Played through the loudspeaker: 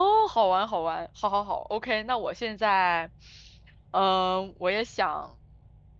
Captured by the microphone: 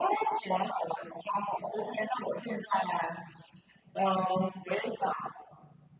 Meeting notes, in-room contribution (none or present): none